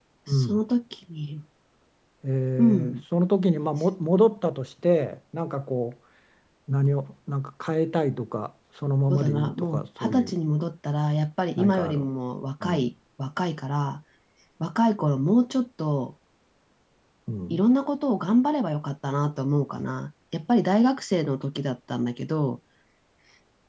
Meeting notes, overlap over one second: present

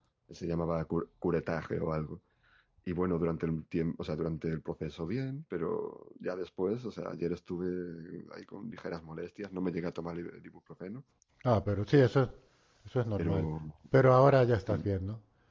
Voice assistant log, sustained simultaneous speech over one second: none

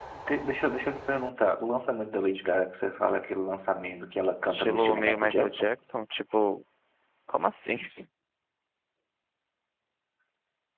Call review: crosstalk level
present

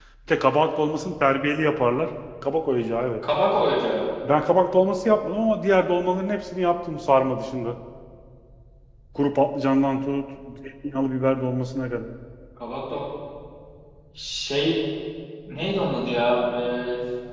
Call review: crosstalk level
none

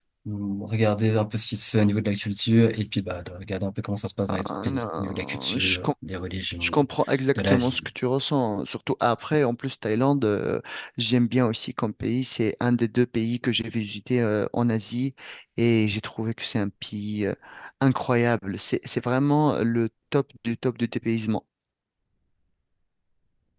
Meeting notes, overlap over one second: present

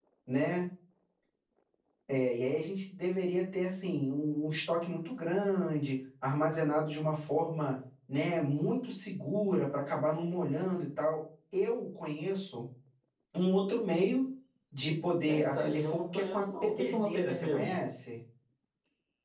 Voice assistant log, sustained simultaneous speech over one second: present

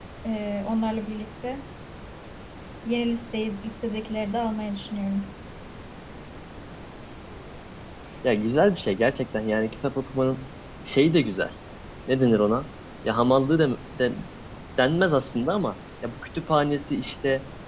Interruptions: none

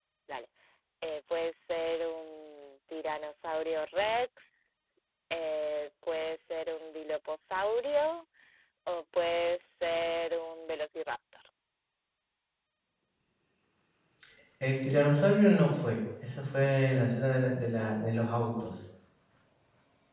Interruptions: none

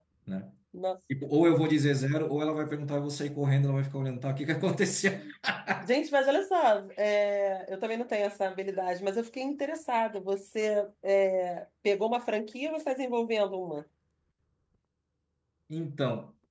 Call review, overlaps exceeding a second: none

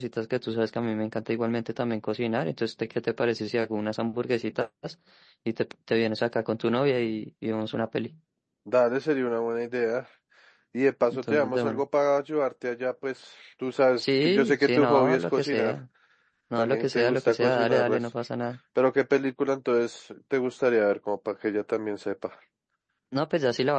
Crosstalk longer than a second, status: present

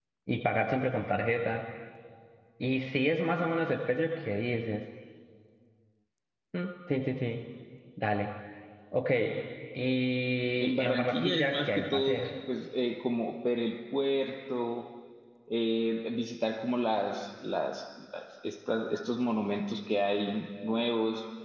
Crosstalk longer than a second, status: present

